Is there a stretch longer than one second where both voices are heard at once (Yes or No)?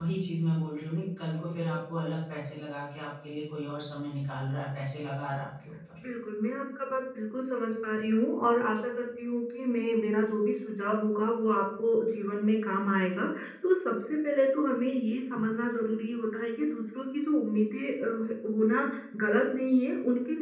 No